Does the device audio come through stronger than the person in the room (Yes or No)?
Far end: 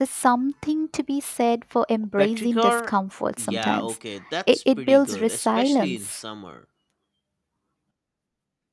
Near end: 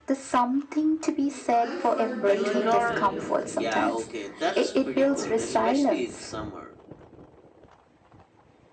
Yes